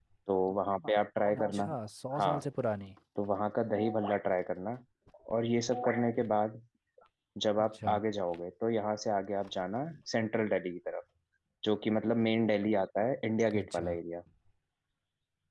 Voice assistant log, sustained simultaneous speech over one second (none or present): none